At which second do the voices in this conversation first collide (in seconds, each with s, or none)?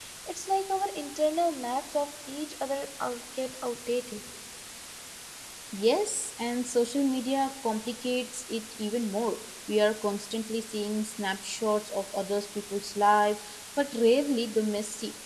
none